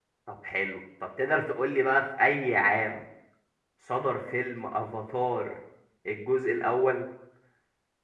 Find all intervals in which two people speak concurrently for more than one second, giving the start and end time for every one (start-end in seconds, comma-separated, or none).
none